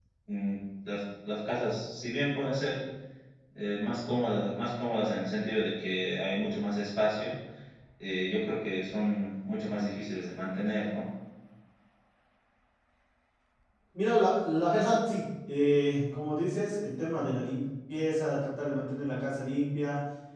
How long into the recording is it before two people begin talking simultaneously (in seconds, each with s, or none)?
none